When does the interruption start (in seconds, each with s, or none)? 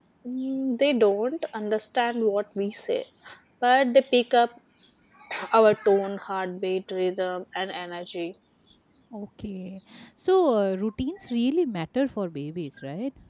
none